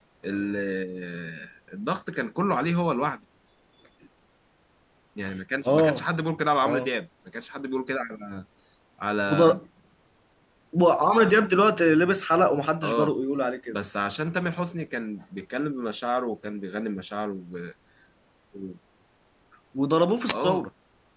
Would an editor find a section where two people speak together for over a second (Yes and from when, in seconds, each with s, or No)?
No